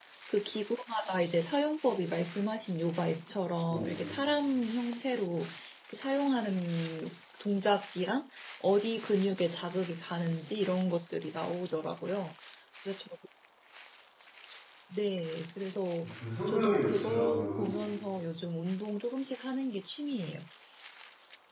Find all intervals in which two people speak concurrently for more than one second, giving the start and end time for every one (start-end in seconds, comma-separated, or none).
16.5-17.7